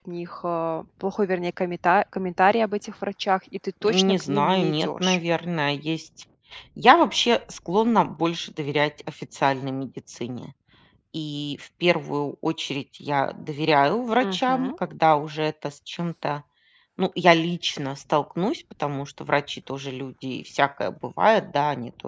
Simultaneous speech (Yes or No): Yes